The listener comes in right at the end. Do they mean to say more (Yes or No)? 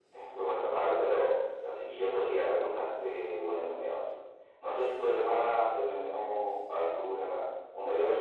Yes